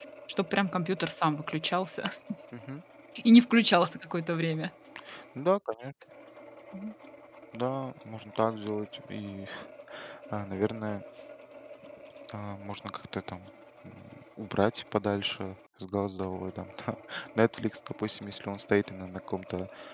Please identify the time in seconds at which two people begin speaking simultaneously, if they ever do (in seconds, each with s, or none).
none